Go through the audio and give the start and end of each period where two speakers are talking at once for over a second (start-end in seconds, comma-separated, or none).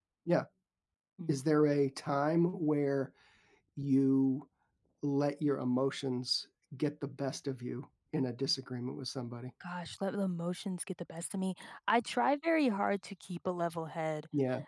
none